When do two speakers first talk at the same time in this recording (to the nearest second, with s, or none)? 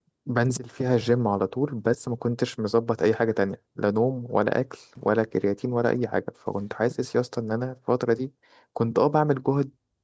none